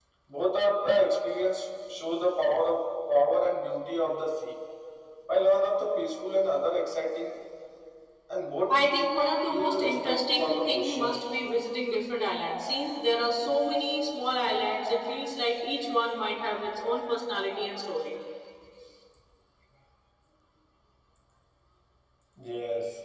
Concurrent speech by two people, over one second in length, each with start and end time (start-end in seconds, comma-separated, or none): 9.5-11.2